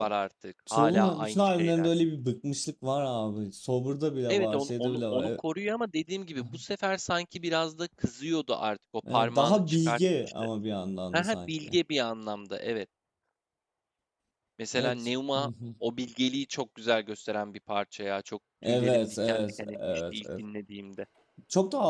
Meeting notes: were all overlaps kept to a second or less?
No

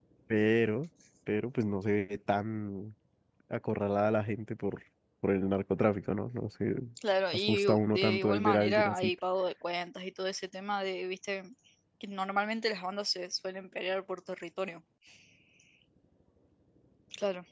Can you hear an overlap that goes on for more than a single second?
Yes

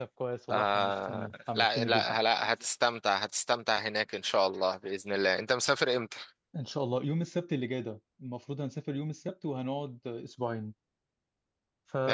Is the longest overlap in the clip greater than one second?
Yes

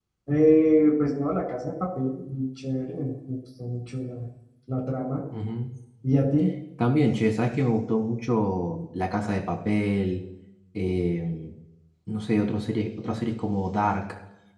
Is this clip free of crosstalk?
Yes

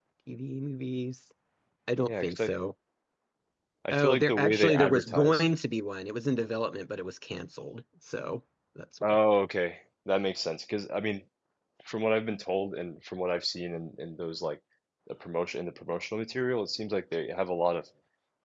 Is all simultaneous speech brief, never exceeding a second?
No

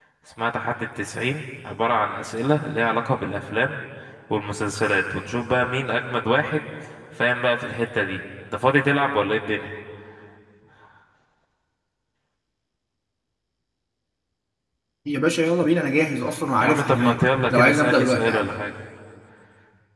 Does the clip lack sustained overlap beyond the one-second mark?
No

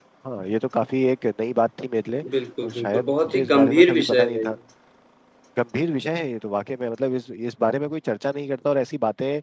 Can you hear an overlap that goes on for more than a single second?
Yes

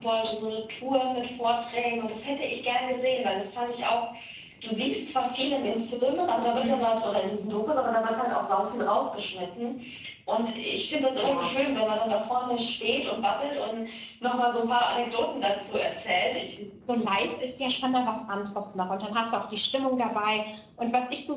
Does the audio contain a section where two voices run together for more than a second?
No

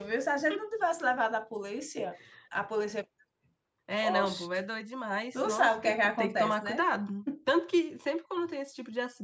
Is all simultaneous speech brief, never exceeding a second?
No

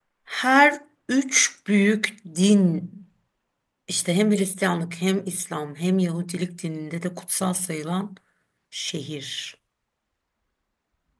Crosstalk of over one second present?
No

